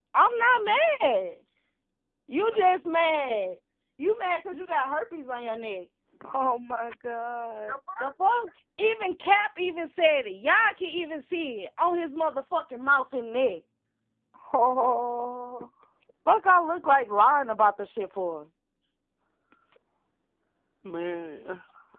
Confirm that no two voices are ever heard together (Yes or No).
Yes